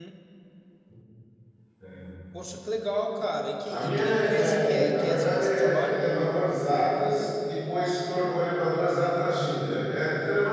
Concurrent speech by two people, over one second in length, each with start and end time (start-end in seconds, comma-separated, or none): 3.7-6.0